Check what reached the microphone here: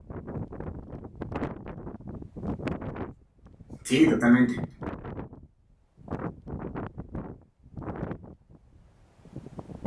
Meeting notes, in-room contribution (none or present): present